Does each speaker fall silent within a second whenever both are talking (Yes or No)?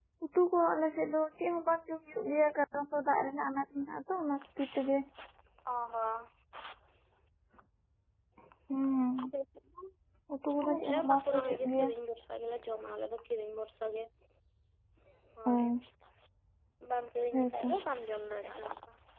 No